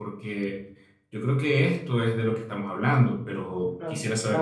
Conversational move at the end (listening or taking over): taking over